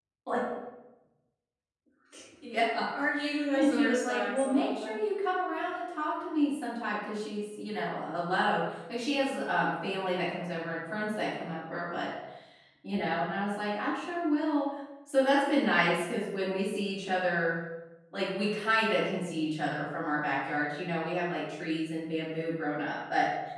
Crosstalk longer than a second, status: present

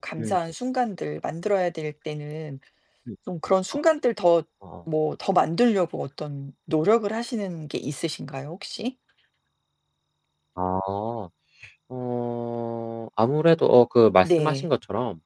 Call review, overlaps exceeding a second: none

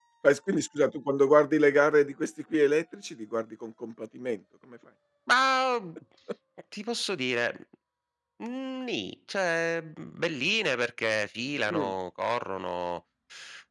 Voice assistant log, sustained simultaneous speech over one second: none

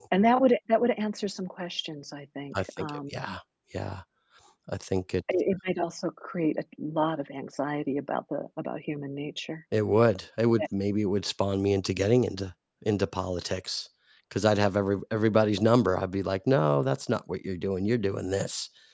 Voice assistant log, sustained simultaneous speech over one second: none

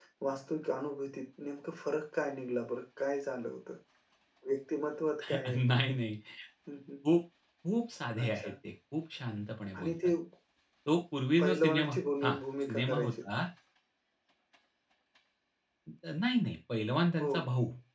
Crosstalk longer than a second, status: present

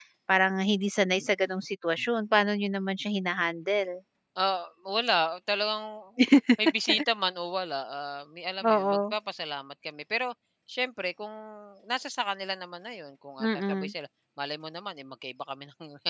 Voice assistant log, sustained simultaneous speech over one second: none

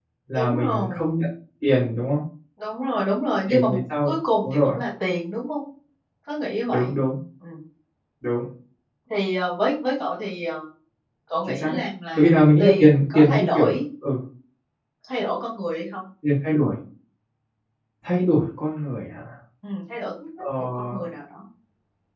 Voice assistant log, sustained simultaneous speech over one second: present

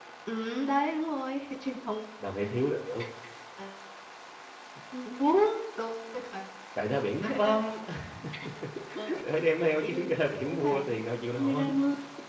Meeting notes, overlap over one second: present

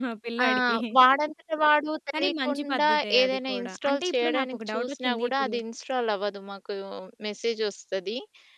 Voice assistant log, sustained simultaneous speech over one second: present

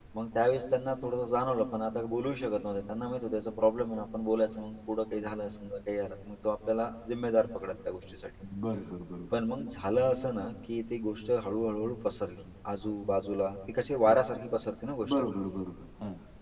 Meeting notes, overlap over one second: none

